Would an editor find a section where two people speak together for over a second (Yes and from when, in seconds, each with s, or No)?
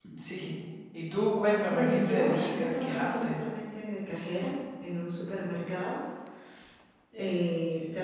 Yes, from 1.6 s